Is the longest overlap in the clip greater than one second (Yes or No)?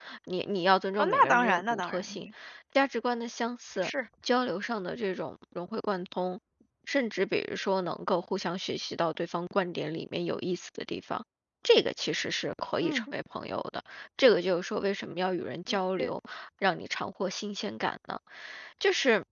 Yes